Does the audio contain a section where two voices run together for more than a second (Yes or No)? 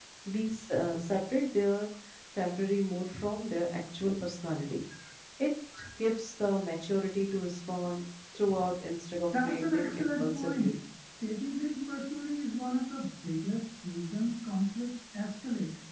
Yes